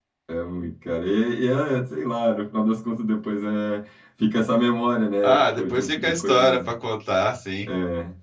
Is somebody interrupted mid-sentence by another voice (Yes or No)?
Yes